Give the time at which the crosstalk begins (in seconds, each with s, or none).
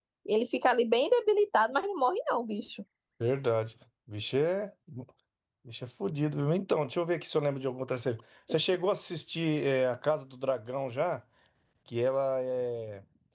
none